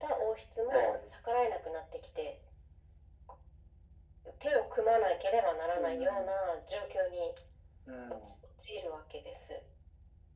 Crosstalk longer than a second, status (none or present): none